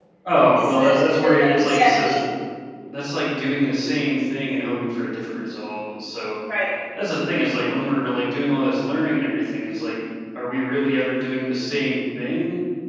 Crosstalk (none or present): present